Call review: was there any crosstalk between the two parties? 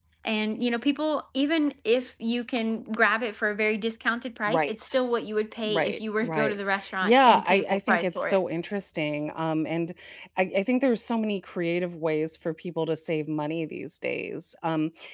Yes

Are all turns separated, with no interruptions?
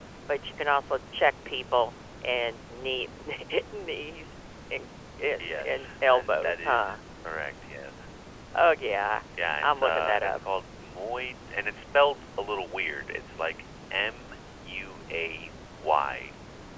No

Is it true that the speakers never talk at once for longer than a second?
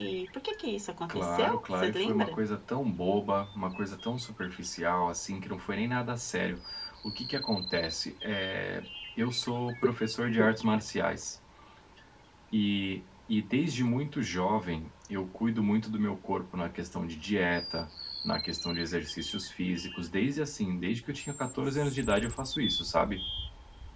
No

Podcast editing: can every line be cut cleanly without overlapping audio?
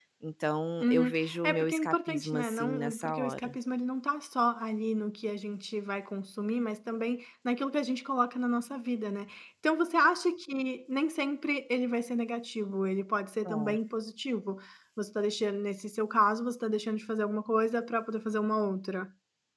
No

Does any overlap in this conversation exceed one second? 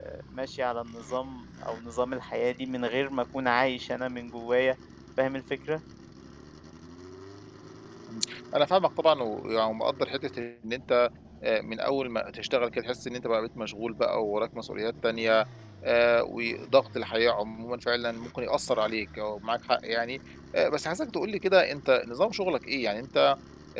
No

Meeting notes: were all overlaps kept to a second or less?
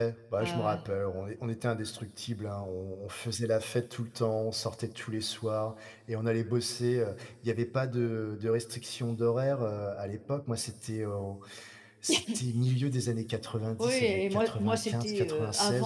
No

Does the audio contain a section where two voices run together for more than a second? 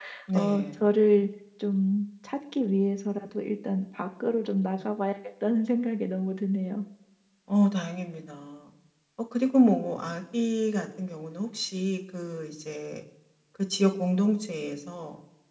No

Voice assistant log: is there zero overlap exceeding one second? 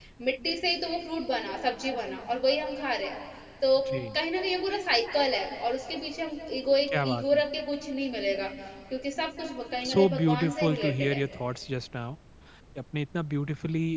No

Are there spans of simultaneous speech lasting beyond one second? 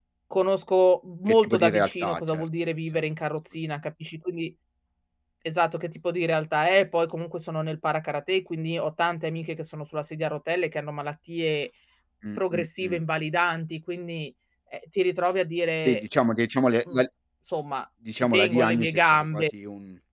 Yes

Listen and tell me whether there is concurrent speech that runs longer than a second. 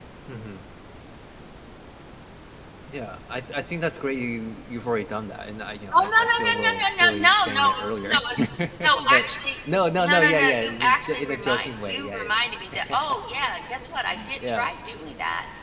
Yes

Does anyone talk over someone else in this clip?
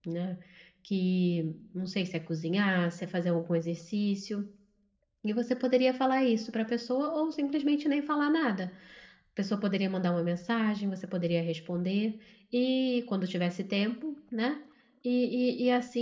No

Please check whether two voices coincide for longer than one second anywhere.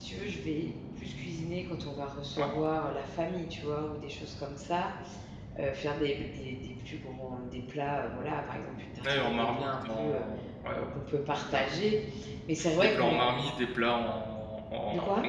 Yes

